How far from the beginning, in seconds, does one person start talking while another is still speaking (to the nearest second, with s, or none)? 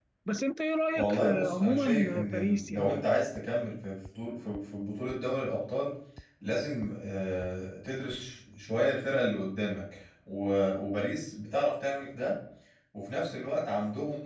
1 s